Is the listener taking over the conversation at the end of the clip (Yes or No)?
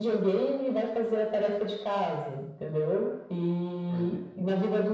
No